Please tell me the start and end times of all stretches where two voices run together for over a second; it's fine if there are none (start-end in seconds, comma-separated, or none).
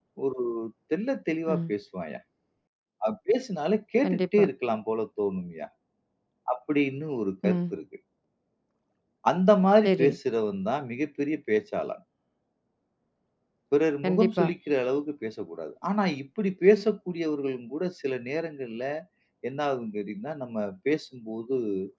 none